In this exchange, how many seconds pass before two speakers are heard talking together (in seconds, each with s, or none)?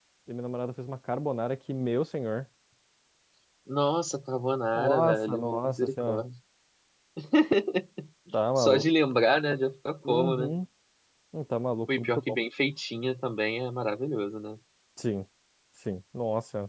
4.7 s